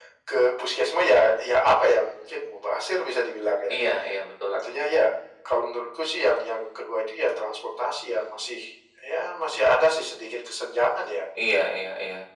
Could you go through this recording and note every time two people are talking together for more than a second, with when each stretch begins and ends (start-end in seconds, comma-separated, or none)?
none